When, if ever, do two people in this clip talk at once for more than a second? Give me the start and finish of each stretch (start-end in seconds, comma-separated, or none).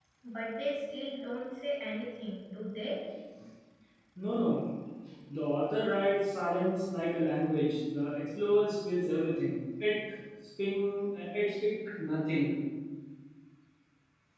none